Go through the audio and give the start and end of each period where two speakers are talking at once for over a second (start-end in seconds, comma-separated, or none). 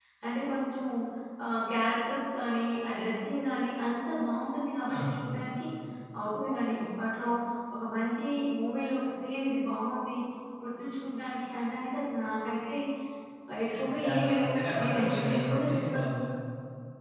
13.9-16.2